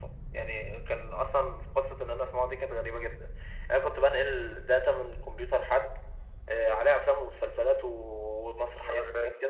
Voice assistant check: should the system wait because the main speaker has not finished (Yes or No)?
Yes